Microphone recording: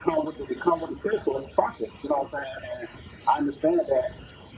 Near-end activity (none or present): none